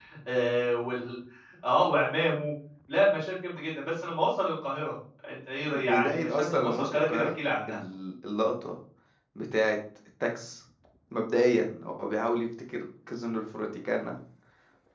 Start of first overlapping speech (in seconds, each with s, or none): 5.7 s